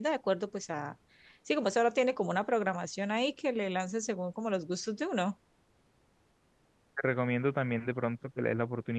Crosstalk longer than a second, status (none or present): none